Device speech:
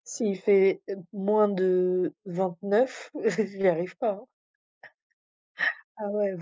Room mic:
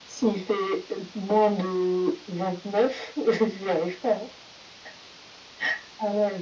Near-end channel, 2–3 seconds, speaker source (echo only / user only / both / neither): echo only